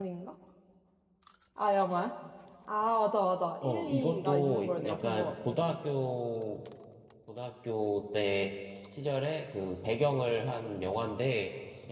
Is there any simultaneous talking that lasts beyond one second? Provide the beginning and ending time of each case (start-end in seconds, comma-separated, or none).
3.6-5.5